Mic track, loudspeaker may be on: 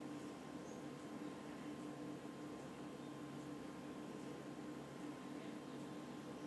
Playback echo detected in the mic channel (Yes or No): No